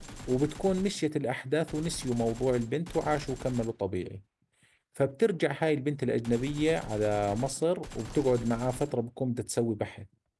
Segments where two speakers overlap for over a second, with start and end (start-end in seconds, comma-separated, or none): none